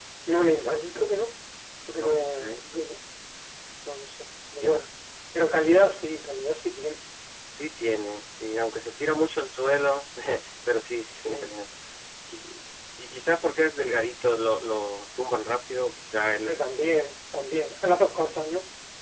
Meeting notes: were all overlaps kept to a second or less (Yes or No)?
Yes